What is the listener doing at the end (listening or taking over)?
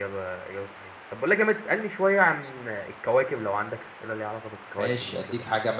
taking over